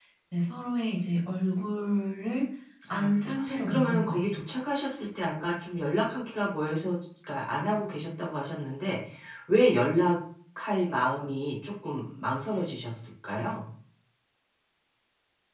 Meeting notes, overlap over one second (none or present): present